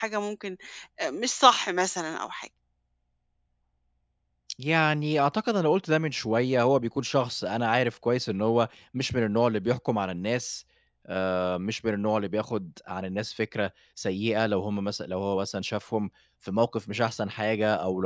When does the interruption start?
none

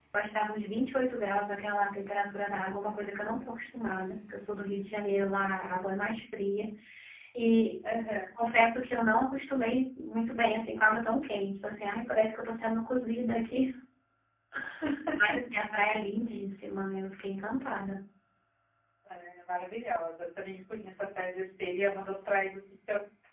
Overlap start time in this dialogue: none

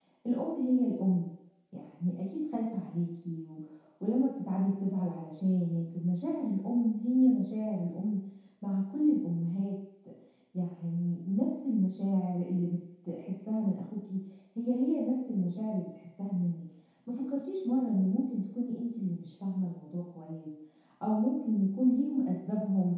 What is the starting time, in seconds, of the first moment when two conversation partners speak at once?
none

